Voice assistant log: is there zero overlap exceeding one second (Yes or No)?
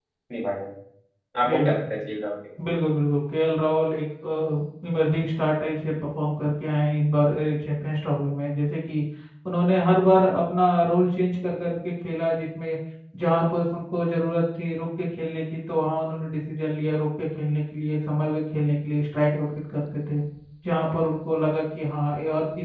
Yes